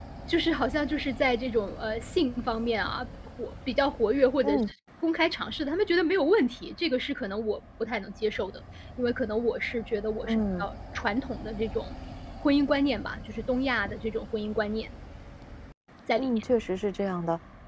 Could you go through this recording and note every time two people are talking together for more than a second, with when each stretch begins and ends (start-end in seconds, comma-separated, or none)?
none